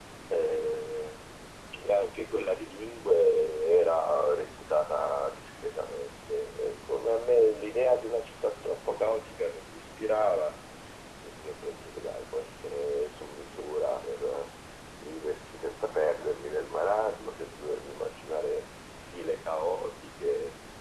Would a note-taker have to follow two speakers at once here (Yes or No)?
No